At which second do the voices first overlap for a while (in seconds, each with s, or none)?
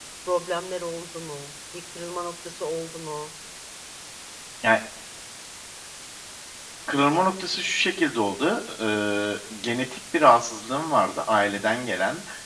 none